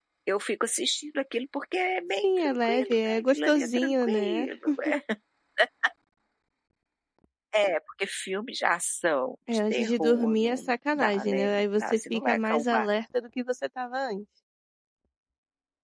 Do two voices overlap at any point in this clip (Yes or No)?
Yes